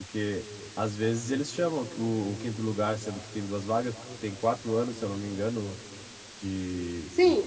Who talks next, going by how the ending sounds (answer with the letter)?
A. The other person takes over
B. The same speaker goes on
A